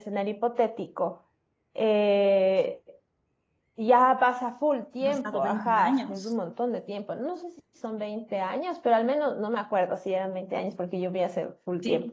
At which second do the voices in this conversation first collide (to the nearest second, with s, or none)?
5 s